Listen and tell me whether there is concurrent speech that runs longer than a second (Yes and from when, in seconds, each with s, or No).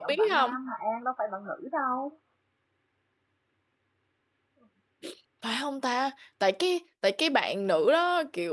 No